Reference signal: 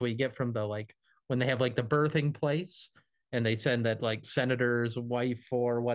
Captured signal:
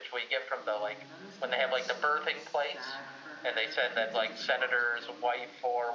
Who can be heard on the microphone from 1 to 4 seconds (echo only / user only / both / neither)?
both